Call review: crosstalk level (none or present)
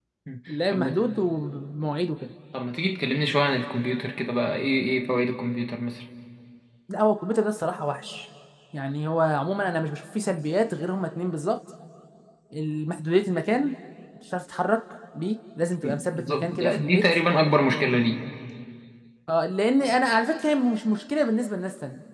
present